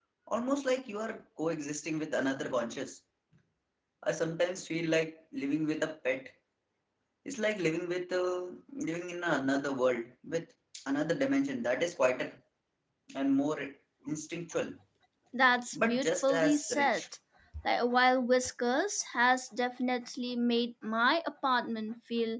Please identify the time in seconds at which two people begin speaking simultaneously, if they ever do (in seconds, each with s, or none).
15.7 s